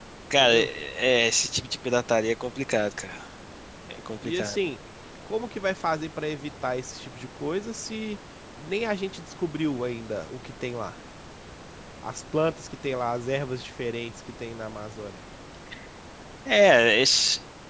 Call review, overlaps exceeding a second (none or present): none